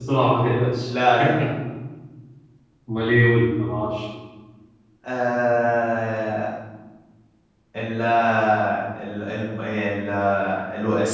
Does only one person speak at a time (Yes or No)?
Yes